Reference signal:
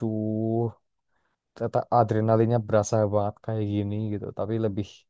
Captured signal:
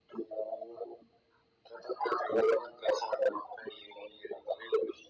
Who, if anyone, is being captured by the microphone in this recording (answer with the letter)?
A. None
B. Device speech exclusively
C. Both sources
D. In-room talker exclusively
B